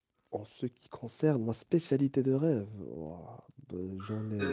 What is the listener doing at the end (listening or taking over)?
taking over